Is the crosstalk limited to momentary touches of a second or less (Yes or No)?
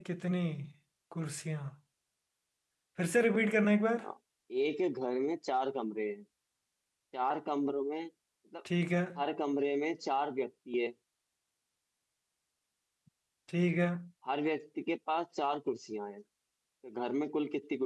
Yes